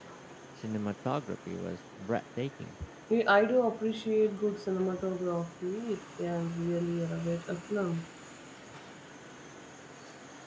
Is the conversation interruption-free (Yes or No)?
Yes